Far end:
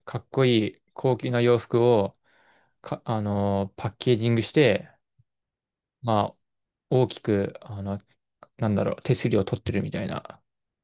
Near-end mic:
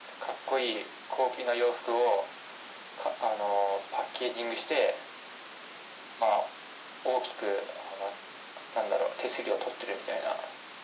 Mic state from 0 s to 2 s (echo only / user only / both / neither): echo only